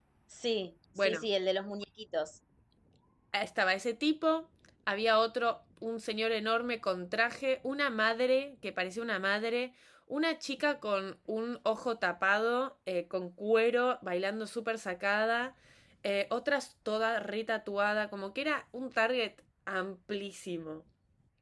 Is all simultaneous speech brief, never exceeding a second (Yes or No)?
Yes